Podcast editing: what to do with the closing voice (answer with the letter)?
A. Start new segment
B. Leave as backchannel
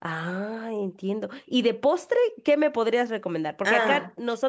B